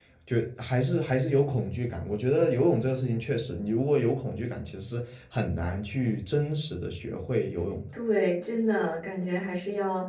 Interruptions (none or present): none